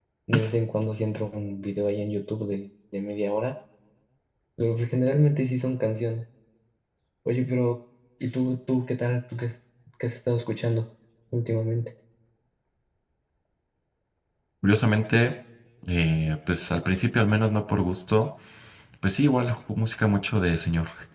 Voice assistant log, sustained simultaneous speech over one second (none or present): none